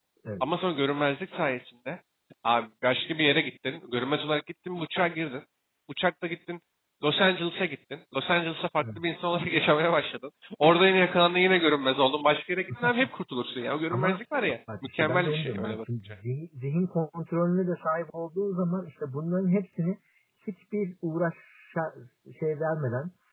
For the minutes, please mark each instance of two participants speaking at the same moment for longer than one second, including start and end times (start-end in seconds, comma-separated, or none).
14.9-16.1